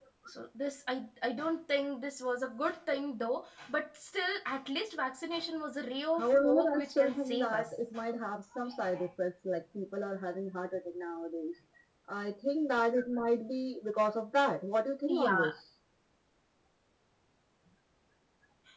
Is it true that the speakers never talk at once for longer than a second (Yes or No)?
No